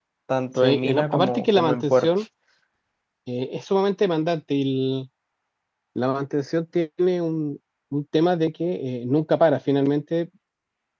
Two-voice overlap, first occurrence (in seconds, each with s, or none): 0.6 s